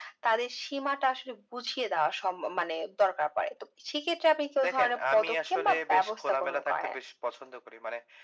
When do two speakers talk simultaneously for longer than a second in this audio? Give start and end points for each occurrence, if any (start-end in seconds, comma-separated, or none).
4.6-7.0